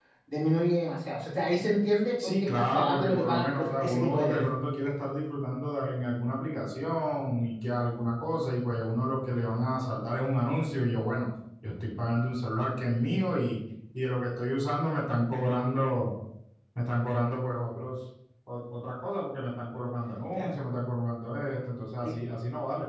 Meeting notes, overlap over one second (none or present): present